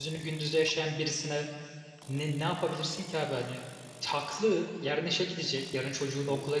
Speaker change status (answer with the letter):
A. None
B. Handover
A